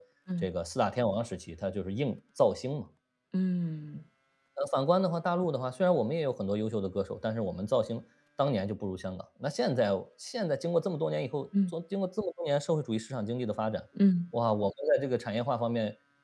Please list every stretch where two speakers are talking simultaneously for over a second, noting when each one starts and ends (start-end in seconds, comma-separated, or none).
none